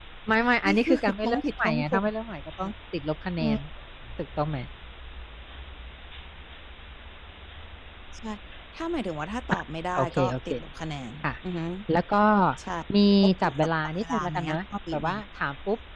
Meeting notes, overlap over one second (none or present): present